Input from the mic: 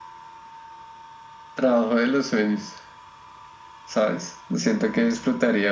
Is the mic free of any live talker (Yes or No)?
Yes